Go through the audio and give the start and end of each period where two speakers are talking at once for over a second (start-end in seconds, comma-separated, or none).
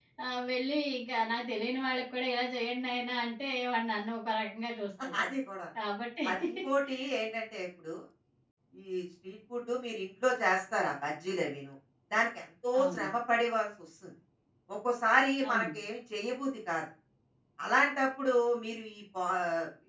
none